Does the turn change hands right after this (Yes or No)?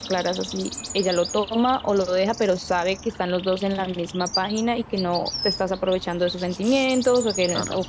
No